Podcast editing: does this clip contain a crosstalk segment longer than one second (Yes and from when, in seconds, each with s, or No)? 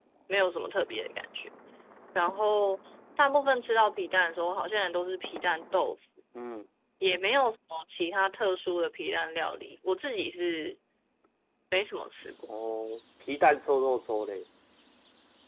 No